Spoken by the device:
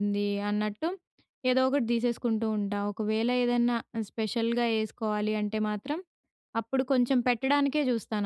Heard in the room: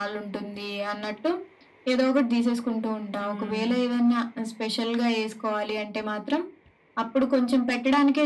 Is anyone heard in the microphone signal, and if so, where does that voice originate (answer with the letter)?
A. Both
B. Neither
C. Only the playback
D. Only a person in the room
A